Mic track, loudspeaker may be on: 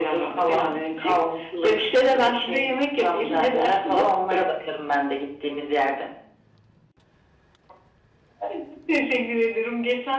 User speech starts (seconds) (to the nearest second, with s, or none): none